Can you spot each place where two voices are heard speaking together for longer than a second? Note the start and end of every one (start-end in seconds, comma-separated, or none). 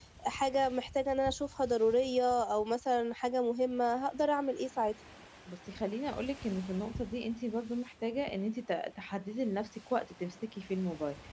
none